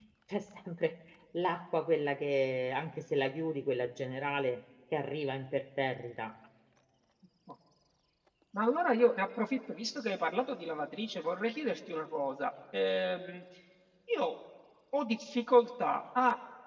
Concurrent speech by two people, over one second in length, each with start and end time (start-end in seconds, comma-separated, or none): none